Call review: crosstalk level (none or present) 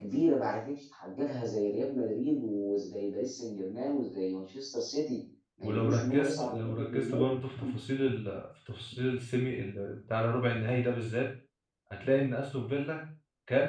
present